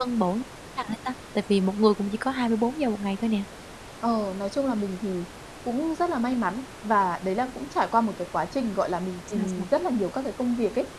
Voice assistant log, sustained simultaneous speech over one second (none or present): none